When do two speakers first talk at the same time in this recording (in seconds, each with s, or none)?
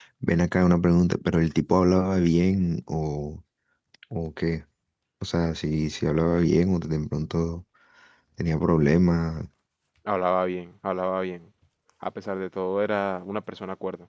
none